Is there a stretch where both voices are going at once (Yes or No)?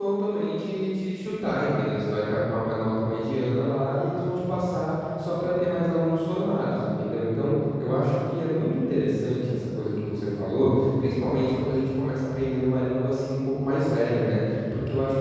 No